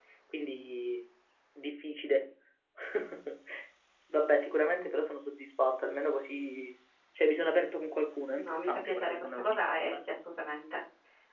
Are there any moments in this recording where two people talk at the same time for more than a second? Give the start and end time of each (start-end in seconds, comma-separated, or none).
8.4-9.9